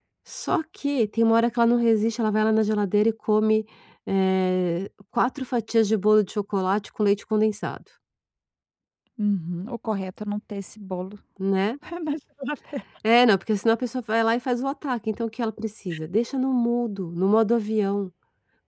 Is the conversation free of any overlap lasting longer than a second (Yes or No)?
Yes